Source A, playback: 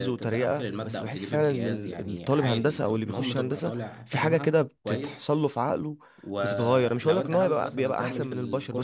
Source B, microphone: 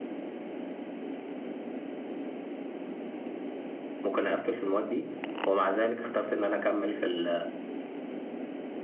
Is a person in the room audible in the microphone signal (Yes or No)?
Yes